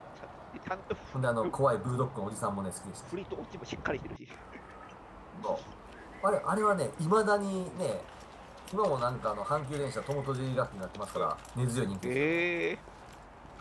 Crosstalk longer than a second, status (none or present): none